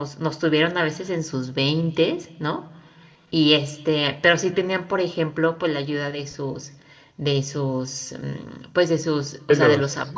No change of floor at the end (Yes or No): Yes